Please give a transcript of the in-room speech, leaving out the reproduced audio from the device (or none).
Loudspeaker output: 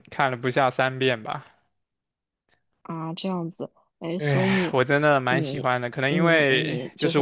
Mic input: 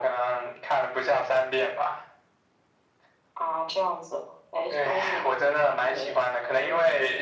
none